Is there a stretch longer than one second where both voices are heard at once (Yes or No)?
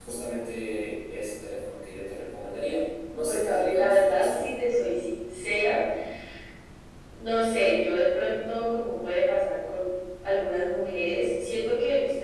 Yes